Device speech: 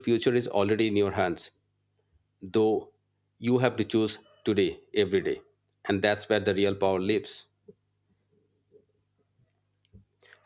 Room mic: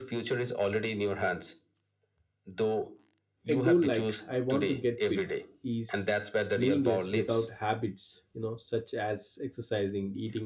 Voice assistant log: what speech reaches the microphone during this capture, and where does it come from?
both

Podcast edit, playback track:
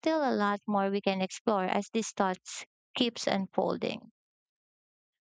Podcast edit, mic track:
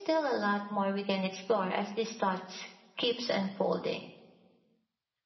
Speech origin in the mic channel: echo only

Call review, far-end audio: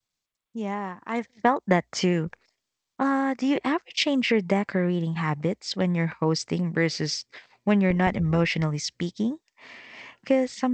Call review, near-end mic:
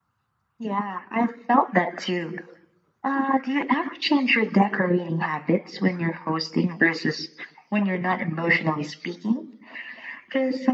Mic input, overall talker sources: echo only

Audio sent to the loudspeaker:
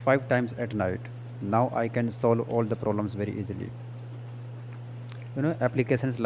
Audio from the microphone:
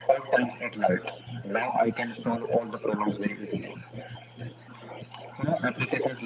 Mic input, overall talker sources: echo only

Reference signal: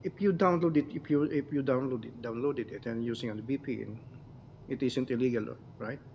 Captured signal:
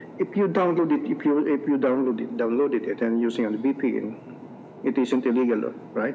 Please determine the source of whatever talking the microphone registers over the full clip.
echo only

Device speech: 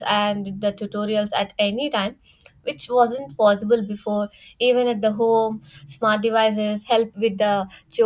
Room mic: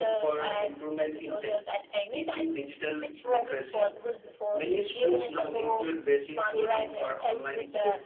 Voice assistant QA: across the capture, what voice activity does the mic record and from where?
both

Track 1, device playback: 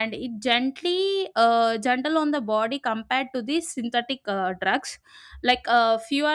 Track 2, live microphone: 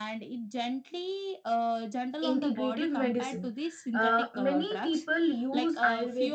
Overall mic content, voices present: both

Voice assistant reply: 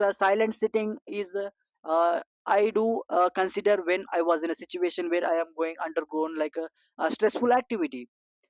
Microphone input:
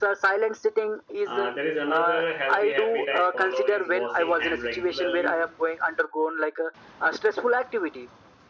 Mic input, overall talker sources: both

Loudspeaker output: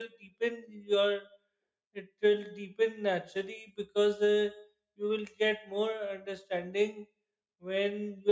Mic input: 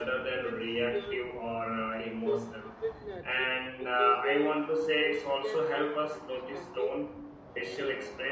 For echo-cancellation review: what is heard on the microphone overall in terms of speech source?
both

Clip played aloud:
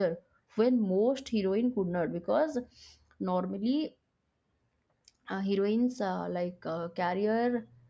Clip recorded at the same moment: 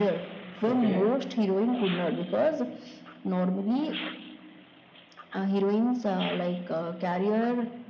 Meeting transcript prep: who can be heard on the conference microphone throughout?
both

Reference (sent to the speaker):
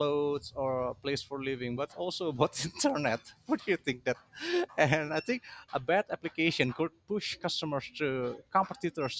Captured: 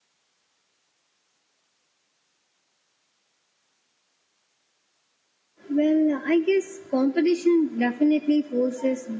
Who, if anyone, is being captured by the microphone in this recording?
user only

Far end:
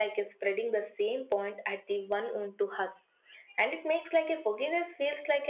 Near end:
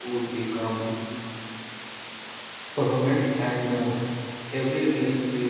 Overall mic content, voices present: user only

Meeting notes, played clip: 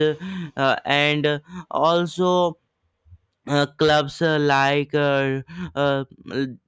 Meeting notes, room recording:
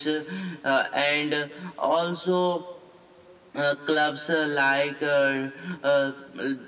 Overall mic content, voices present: echo only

